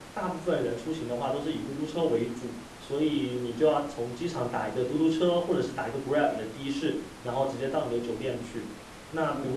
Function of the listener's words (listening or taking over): listening